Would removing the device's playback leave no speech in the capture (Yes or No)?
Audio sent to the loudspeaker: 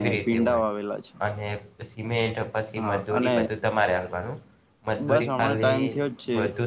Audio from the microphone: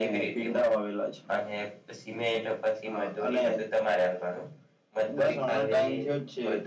Yes